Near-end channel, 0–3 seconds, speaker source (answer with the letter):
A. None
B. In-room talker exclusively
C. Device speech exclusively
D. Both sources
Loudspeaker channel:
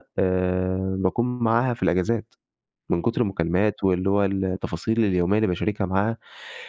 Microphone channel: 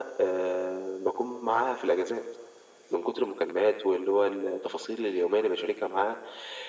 C